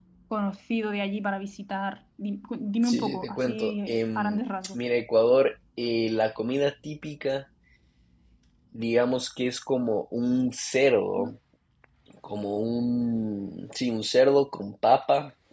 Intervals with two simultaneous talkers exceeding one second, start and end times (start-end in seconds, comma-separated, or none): 2.8-4.8